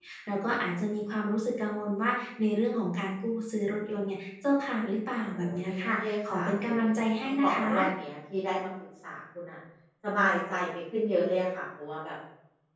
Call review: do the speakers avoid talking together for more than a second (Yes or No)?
No